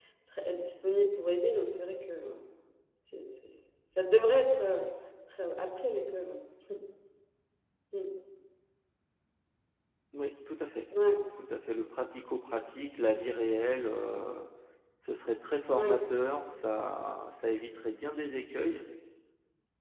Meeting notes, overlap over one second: none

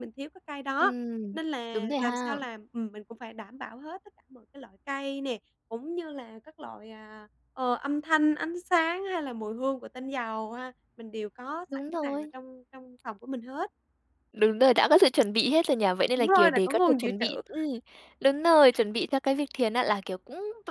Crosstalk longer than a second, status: present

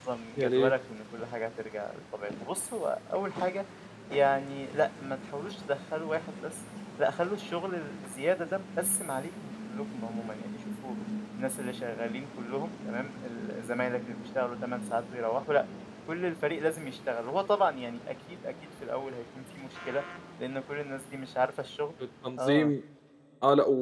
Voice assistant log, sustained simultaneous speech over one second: none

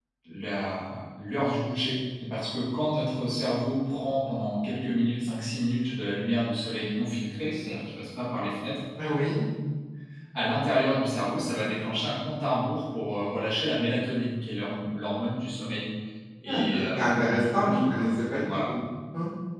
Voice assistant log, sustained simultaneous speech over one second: present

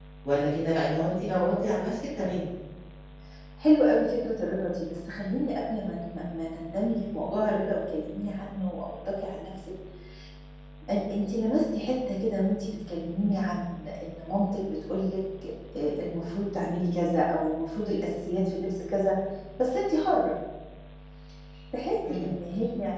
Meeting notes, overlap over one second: none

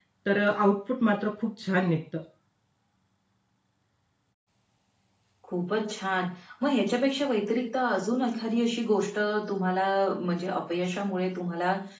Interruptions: none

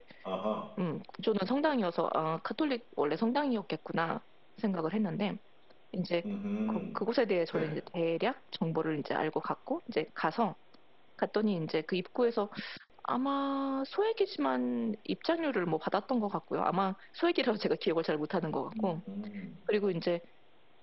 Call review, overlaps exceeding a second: none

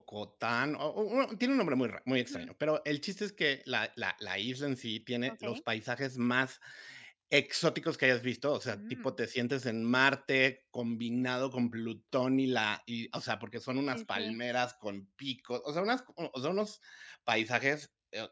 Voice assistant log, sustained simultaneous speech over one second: none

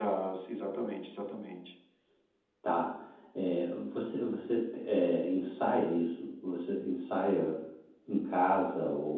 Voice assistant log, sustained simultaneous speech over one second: none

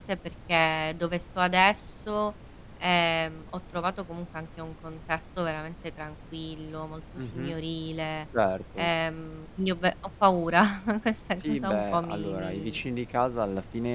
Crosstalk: present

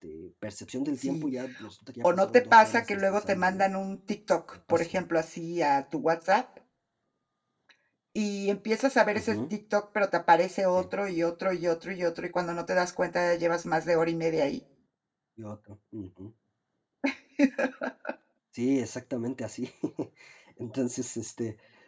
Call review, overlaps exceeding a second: present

